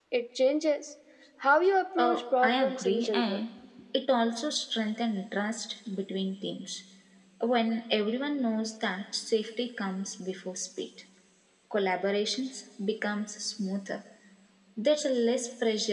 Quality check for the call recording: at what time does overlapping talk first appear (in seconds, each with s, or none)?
2.0 s